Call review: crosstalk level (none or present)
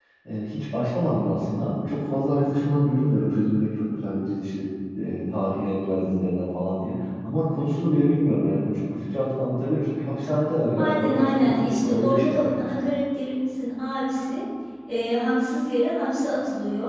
present